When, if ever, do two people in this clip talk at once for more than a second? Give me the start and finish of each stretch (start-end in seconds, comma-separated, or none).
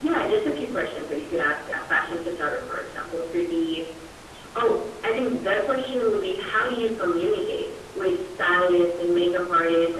none